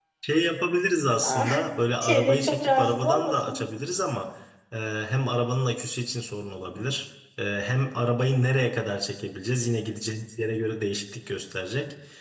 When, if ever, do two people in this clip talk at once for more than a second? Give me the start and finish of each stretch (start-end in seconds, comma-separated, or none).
2.0-3.6